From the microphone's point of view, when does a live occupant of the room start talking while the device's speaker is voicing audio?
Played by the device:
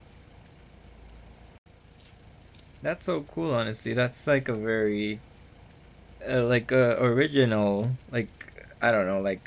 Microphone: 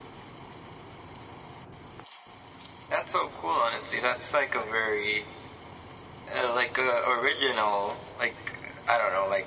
none

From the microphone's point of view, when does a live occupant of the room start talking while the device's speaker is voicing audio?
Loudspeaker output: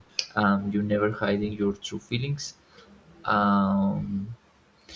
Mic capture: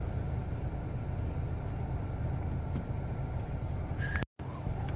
none

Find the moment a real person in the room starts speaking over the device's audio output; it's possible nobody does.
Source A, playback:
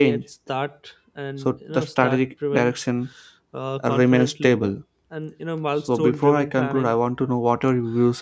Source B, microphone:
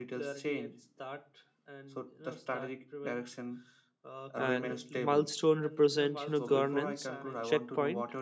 4.5 s

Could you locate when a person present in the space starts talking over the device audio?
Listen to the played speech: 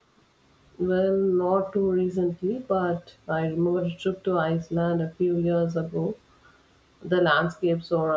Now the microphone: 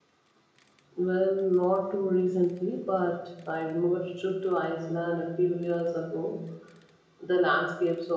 none

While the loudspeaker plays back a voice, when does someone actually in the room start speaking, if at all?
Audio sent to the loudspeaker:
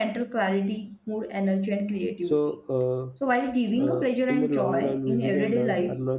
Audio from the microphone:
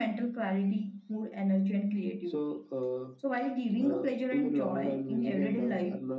none

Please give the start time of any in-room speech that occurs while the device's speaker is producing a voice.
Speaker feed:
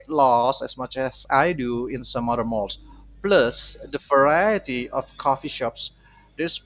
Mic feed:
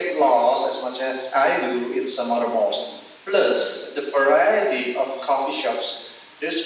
none

